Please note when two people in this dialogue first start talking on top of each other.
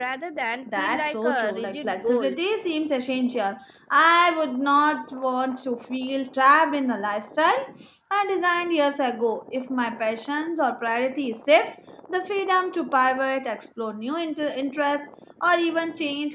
1 s

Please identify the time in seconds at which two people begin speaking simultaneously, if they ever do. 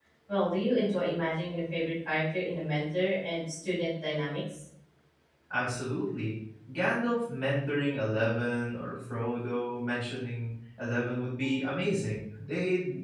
none

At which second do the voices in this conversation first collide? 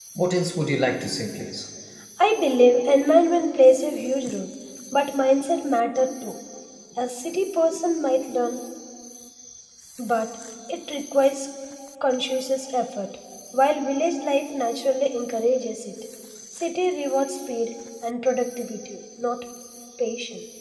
none

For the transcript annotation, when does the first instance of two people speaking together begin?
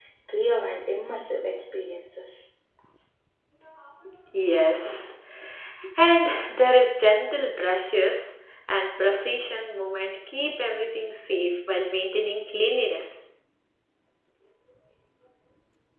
none

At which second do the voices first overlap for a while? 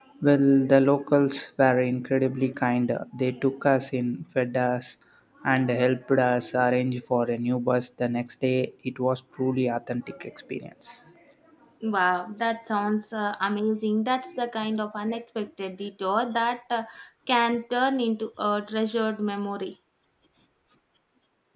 none

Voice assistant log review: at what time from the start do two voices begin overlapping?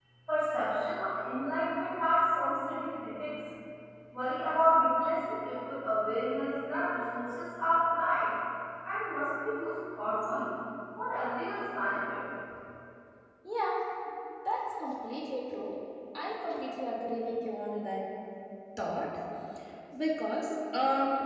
none

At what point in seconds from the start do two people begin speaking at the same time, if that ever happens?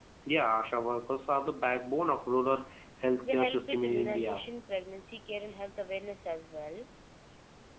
3 s

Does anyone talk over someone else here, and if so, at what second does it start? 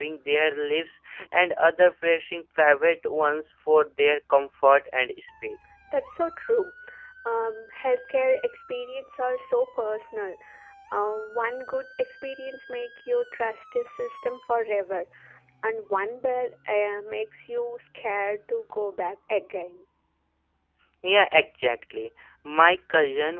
none

